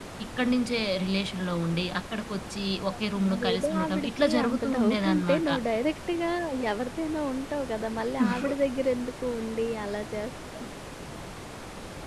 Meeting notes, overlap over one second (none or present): present